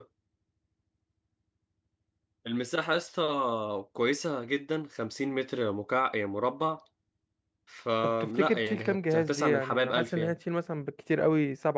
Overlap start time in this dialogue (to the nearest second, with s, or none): 8 s